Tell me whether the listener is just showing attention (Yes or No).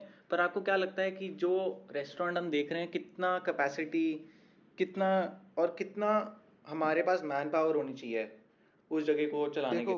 No